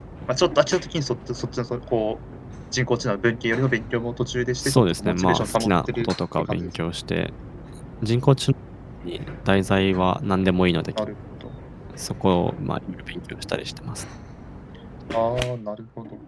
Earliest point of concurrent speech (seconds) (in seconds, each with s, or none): 4.6 s